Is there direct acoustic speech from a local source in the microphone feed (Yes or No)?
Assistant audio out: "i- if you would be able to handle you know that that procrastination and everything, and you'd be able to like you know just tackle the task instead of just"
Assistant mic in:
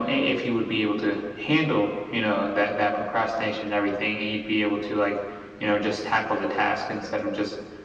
No